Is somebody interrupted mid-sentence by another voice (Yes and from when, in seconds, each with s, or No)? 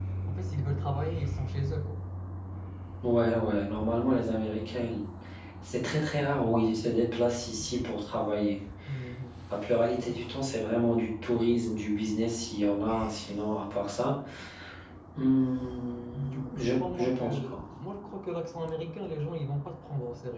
Yes, from 16.1 s